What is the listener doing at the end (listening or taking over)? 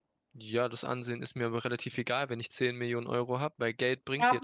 taking over